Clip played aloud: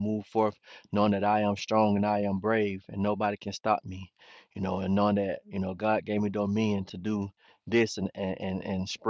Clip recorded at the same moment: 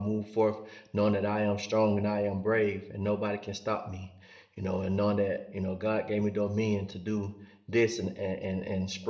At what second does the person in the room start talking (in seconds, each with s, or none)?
none